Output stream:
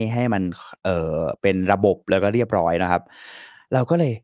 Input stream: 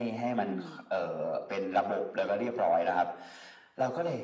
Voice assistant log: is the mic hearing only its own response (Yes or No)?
No